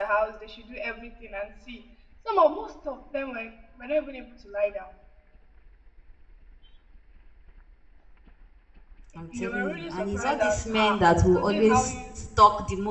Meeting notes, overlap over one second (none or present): present